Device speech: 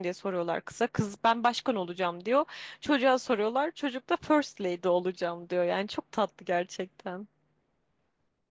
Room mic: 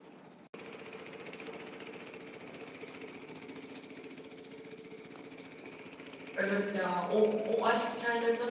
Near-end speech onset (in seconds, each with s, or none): 6.4 s